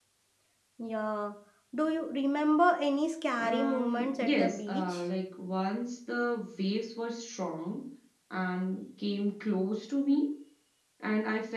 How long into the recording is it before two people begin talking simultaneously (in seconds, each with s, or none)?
3.4 s